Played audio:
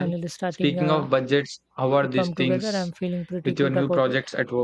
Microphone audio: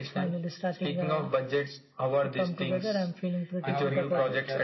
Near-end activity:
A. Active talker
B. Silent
A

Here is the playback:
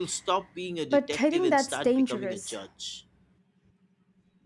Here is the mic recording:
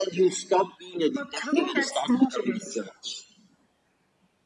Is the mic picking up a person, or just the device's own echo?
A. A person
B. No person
B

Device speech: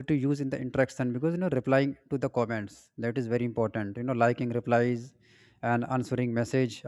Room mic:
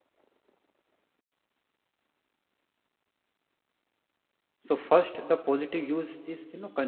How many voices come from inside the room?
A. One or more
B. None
A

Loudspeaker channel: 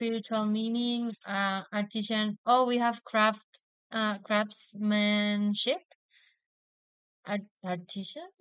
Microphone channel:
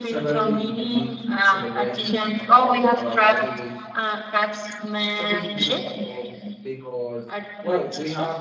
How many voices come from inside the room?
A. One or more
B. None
A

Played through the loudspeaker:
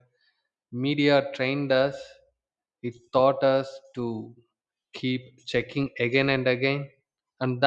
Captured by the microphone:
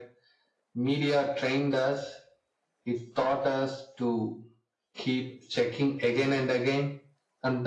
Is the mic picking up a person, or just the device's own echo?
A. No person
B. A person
A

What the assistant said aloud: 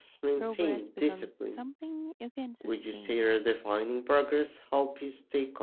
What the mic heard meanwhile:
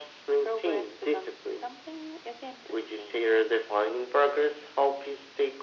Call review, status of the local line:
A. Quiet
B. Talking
A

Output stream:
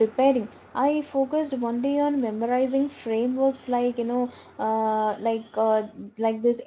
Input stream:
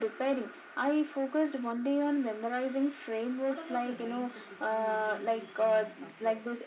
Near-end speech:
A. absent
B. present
B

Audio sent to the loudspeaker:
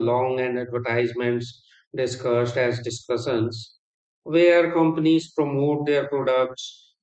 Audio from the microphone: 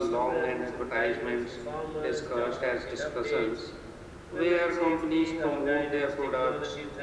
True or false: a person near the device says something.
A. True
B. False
A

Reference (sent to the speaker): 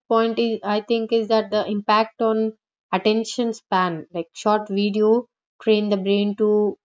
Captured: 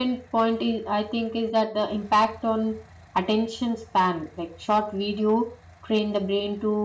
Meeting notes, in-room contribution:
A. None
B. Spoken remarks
A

